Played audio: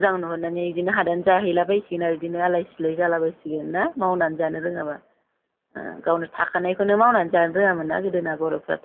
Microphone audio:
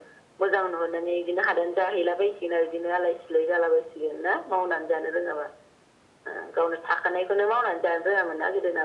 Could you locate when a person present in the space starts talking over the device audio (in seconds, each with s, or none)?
none